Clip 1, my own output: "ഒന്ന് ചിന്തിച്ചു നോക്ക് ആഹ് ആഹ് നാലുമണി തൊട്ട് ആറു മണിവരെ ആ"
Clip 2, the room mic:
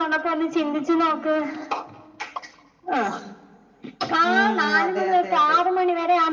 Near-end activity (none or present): present